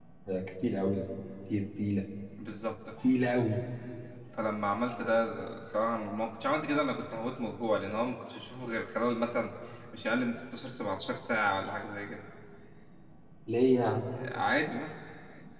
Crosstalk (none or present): none